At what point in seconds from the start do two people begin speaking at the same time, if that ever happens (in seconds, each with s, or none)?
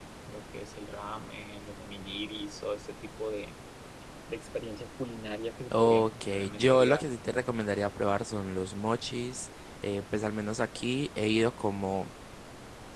5.7 s